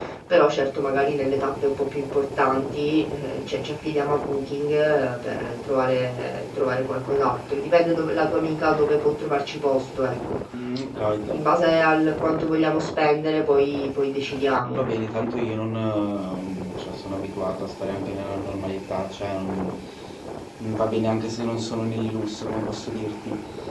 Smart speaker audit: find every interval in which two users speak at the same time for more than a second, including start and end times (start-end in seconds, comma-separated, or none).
none